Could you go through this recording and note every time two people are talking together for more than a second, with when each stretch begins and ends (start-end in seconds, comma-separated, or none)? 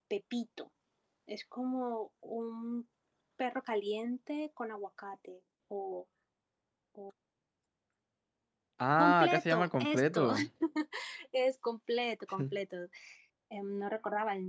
9.0-10.3